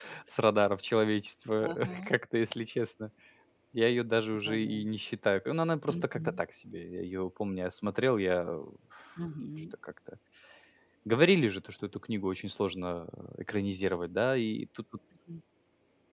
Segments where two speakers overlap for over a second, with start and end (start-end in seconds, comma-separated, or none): none